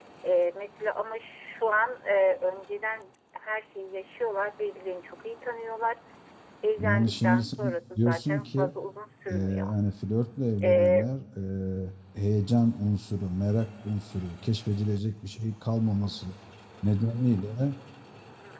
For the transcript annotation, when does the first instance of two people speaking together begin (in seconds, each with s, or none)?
6.8 s